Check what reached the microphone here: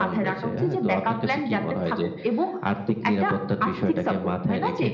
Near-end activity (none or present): none